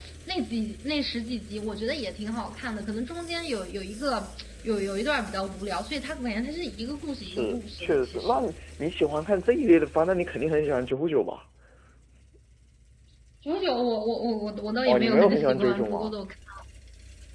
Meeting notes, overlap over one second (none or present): present